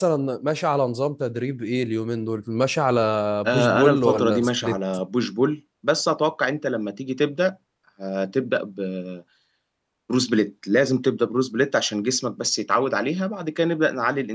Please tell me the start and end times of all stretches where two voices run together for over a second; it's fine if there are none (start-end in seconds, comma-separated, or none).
3.5-4.8